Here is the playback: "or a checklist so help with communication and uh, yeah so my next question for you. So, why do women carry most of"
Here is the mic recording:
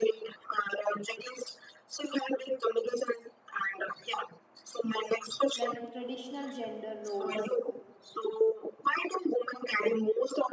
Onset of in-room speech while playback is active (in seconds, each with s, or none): 5.5 s